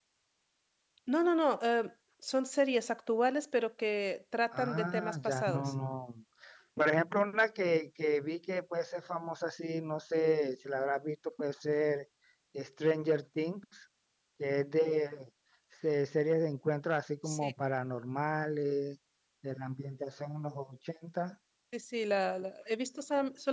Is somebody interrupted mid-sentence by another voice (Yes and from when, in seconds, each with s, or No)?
Yes, from 4.5 s